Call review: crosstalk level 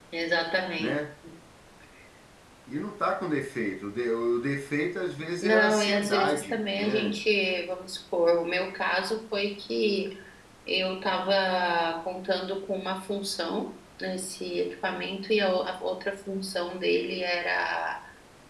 present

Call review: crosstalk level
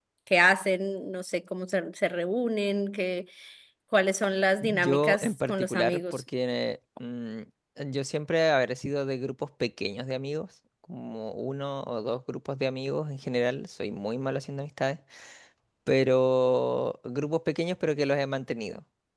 present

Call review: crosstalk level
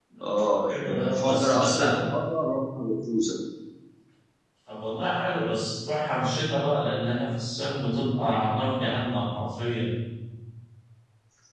present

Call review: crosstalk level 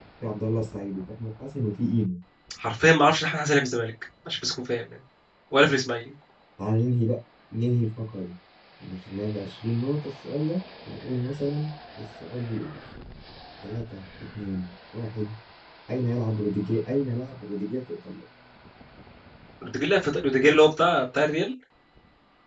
none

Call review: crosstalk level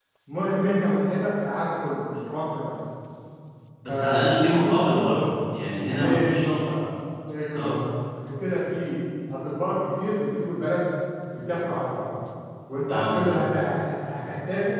present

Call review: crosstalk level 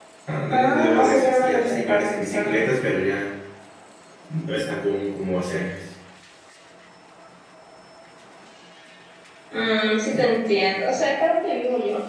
present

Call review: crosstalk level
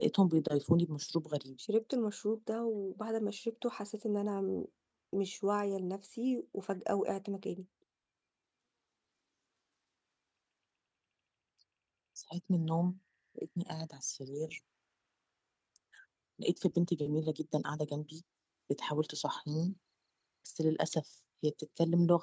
none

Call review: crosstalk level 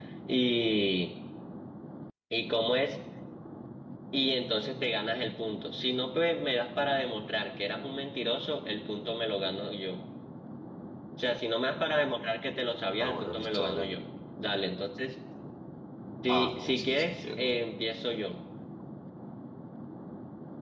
present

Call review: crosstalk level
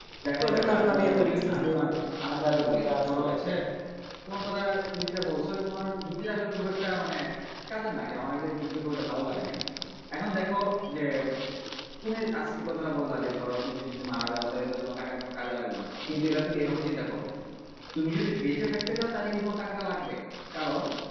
present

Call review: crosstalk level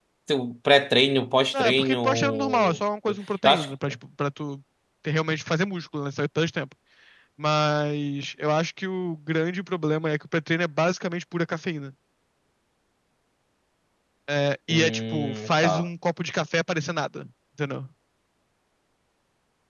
present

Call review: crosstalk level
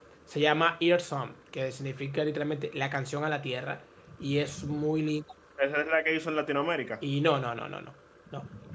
none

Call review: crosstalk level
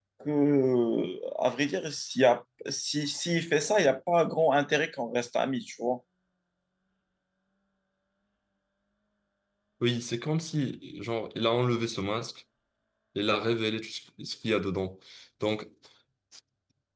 none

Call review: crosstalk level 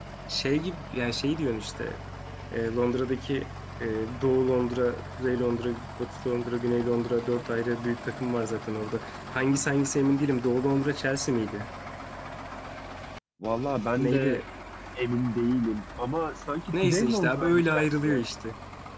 present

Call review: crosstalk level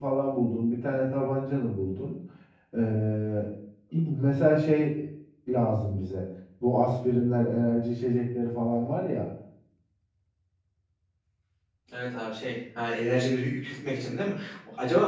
none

